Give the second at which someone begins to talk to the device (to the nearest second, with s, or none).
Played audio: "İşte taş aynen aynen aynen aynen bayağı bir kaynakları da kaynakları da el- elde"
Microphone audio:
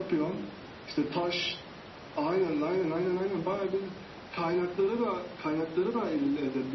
none